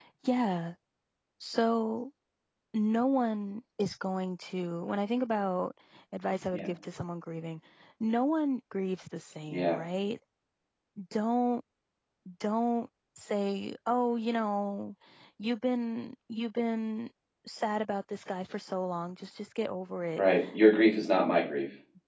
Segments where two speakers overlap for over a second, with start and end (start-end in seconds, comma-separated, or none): none